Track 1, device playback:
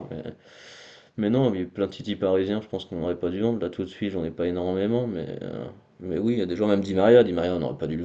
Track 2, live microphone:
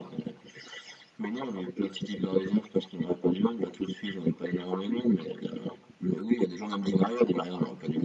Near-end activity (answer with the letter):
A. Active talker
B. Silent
B